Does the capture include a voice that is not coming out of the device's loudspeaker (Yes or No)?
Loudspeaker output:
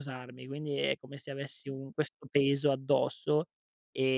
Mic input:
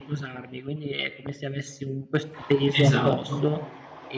Yes